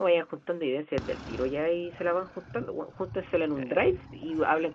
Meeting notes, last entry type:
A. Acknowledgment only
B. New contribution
A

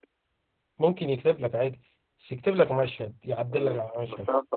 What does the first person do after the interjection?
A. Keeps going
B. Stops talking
B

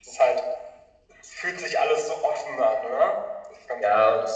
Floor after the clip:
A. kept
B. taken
B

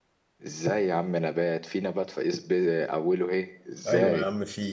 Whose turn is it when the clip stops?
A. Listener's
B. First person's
A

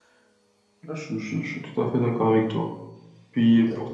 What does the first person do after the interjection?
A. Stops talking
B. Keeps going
B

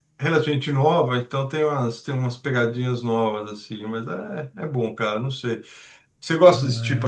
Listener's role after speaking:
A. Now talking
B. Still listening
B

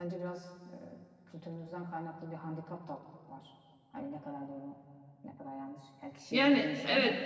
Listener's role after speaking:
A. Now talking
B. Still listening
A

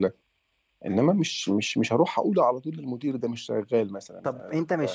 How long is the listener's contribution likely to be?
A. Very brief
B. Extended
B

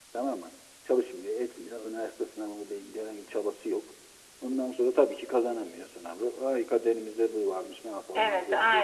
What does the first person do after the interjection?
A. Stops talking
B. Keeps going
A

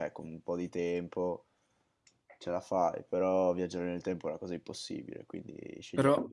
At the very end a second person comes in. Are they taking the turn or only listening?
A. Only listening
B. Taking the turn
B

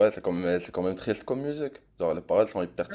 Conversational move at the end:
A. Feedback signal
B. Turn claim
B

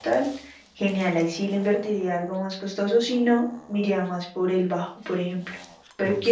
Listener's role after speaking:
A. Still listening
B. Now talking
A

